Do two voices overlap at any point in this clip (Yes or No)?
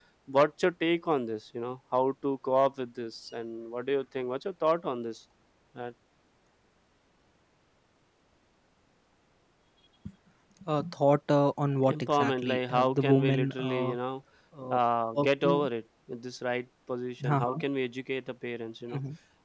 Yes